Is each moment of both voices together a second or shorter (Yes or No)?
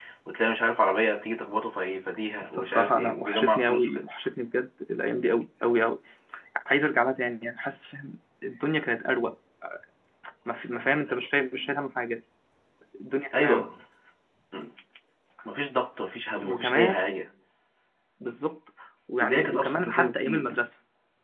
No